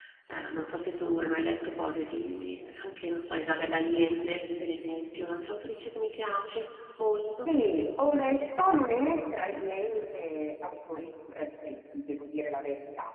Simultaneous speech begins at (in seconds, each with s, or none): none